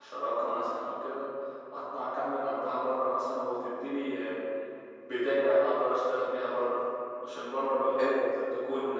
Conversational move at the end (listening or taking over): listening